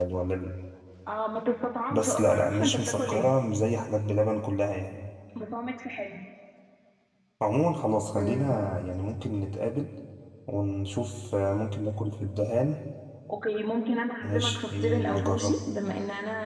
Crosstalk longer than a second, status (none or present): present